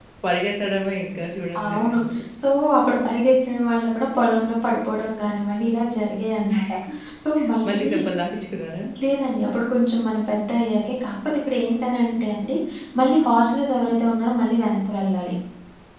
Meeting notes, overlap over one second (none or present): none